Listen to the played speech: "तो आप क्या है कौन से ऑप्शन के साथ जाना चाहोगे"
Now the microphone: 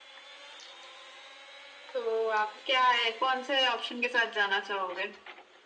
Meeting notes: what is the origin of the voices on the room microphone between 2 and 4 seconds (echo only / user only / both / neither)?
echo only